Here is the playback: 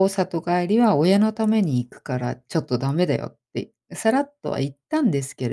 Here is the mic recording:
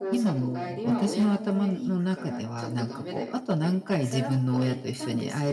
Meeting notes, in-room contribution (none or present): present